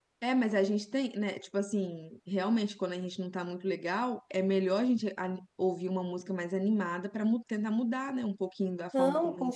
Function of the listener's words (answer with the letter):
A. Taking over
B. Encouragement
A